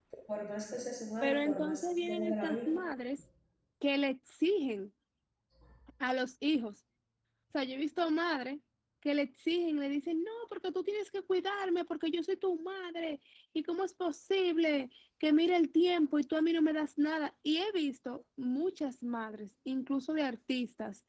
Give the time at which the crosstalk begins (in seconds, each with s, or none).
1.2 s